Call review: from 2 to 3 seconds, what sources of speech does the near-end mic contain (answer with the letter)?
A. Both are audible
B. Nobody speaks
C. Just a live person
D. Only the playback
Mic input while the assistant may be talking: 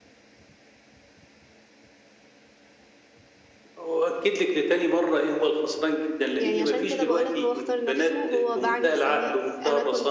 B